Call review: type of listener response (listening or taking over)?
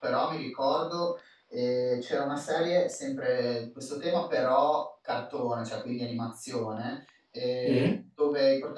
listening